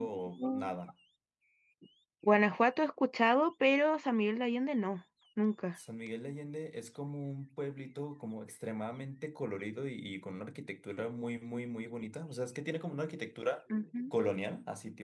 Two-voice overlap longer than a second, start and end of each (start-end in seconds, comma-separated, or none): none